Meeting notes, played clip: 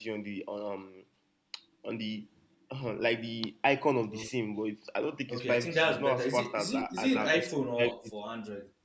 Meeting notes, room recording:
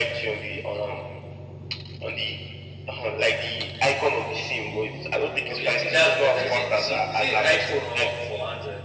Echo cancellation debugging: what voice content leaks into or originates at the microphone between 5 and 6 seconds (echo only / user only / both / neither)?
echo only